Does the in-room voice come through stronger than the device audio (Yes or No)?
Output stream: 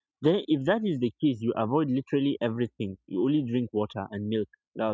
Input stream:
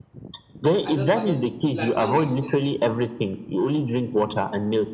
No